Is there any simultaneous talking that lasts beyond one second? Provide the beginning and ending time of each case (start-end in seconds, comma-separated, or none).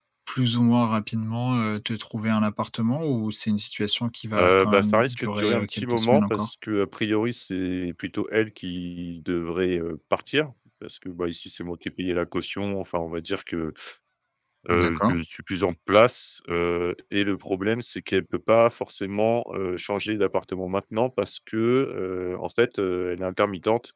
4.4-6.5